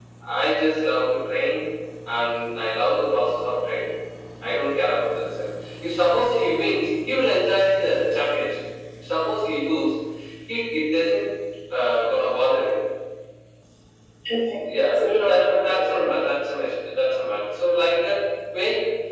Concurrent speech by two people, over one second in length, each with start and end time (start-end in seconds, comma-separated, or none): 14.7-16.1